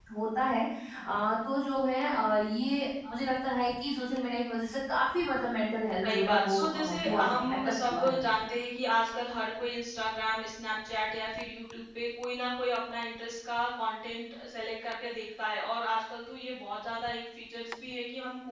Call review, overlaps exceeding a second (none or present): present